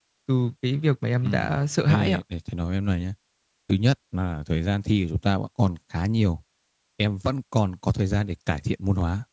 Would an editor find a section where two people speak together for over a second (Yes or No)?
No